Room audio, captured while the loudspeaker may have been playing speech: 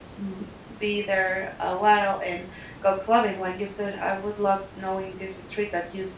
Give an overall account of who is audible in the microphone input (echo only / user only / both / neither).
user only